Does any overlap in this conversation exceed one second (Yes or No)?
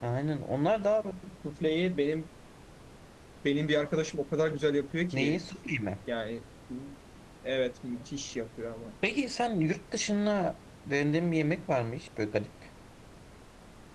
No